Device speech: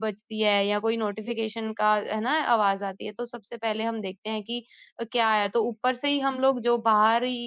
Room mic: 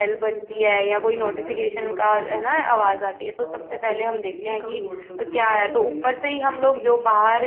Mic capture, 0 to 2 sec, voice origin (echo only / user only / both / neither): both